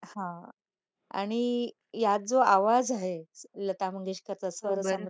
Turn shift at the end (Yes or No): No